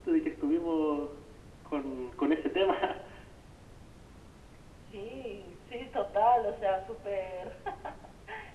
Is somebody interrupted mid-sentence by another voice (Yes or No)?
No